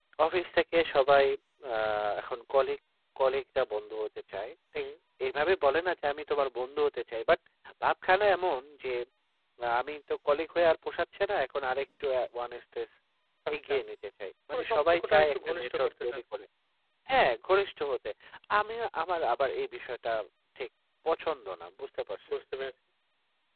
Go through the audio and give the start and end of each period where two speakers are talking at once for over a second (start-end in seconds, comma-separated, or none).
14.5-16.2